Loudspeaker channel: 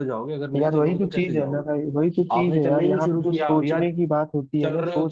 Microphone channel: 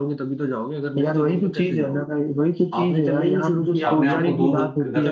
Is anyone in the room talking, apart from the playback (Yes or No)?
Yes